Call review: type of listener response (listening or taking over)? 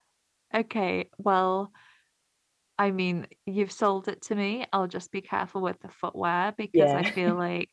listening